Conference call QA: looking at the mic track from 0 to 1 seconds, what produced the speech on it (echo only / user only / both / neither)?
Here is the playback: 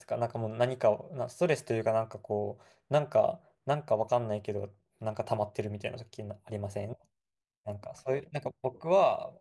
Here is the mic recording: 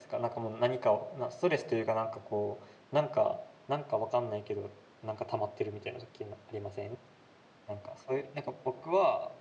echo only